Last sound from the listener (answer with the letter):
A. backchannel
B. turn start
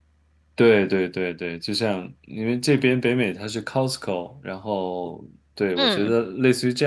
A